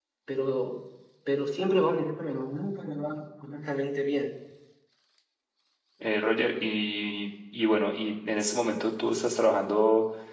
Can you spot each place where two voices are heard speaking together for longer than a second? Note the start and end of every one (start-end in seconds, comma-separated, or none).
none